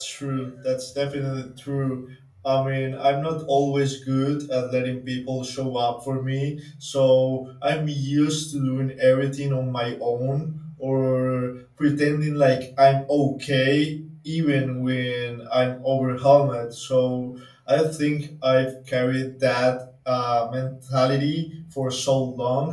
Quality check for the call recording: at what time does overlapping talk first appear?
none

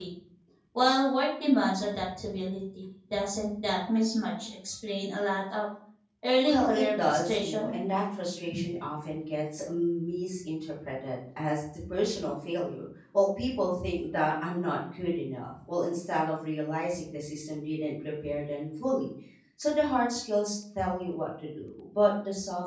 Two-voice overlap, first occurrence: 6.4 s

